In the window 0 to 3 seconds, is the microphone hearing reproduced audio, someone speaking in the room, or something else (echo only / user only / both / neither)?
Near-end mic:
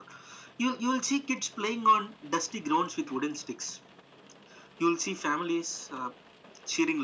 echo only